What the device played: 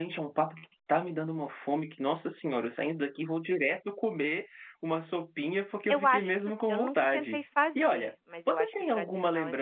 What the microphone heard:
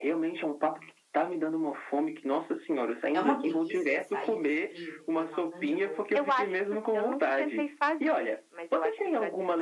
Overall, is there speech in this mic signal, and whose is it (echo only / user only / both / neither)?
both